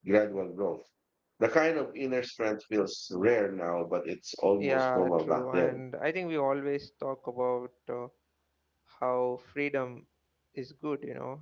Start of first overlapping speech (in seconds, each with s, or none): 4.6 s